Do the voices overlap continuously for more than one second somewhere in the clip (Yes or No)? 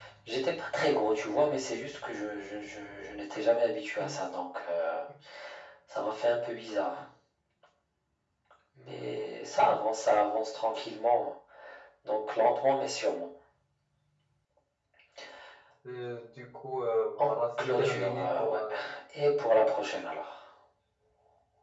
Yes